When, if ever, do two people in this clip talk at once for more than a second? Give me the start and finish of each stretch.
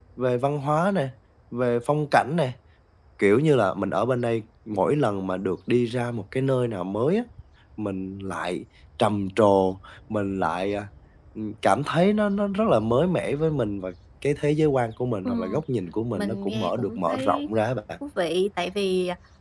16.1-17.5

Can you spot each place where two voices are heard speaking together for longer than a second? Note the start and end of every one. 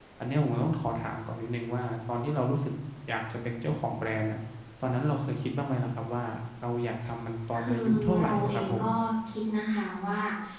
7.6-8.8

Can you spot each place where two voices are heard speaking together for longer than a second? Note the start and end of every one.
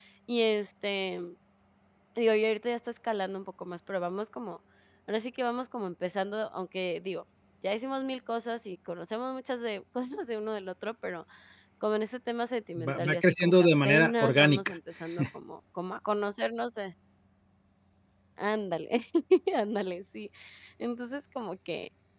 12.9-14.8

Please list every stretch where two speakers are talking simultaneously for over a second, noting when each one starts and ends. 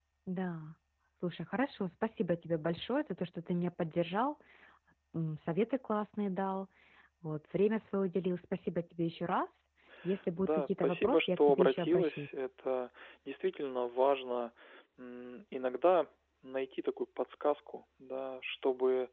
10.4-12.4

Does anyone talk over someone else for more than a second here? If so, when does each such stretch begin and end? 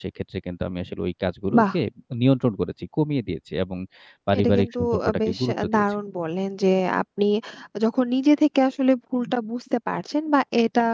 4.4-5.8

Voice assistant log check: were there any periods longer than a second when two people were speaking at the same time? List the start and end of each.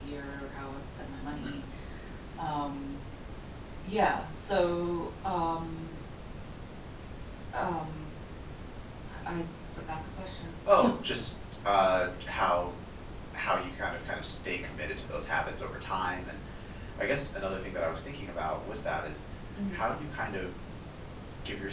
none

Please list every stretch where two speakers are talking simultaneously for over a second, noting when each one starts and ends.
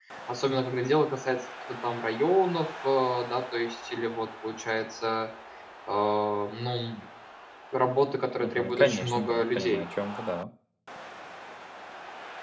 8.4-9.8

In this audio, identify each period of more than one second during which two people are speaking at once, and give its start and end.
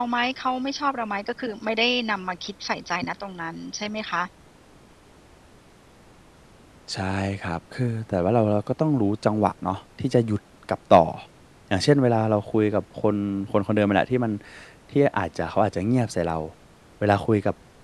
none

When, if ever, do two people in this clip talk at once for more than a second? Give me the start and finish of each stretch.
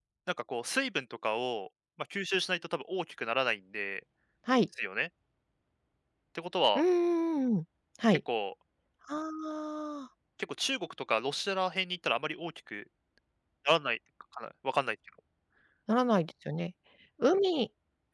none

